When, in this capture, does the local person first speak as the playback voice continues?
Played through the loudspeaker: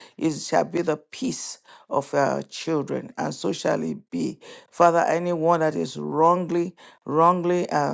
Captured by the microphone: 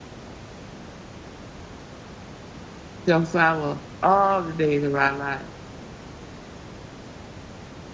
3.1 s

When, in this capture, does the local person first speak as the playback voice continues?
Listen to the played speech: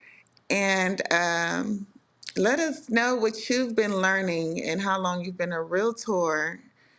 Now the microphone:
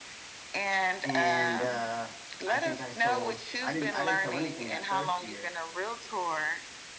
1.0 s

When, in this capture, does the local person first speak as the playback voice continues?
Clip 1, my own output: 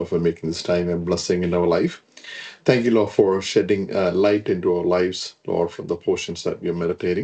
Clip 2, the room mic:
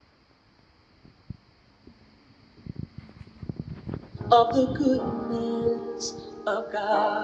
4.3 s

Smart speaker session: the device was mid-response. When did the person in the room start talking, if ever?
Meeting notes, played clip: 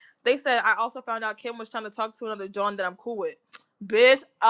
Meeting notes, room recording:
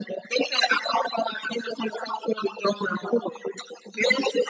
none

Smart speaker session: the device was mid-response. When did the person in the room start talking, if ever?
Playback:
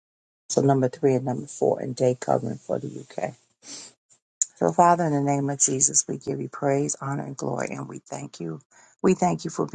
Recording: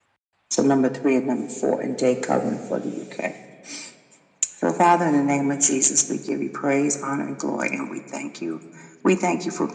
none

